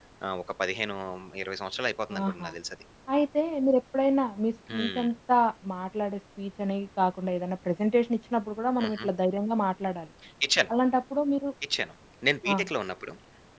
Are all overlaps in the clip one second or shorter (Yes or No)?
Yes